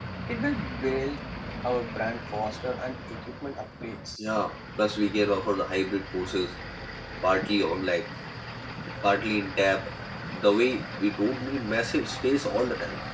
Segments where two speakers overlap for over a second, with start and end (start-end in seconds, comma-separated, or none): none